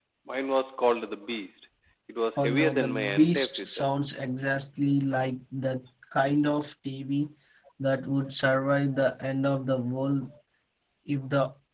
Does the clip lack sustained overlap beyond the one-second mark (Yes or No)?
No